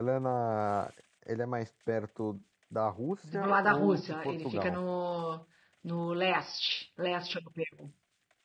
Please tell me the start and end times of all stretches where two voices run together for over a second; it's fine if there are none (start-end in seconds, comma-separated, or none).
3.3-4.8